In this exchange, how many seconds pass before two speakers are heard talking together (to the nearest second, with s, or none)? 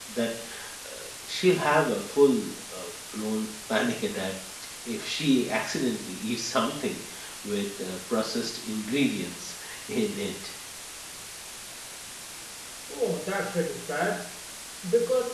none